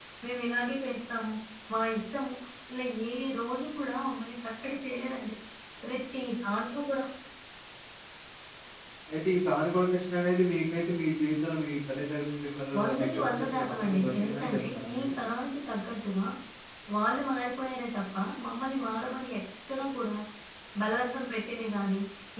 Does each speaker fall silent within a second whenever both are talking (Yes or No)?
No